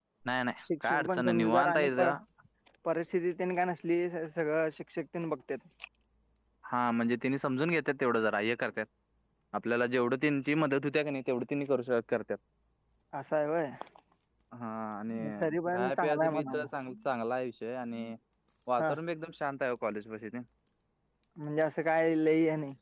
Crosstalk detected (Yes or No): Yes